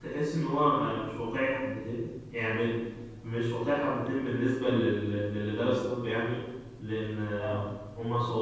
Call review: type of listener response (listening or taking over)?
listening